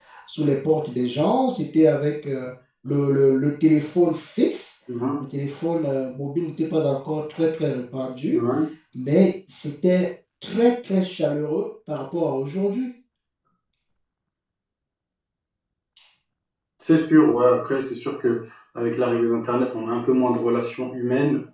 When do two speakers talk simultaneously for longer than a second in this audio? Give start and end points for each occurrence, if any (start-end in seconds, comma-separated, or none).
none